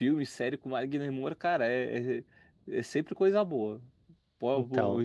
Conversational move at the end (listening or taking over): taking over